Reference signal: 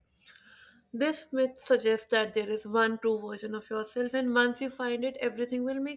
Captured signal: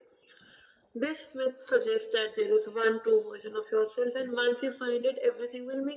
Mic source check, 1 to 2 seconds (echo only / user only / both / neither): echo only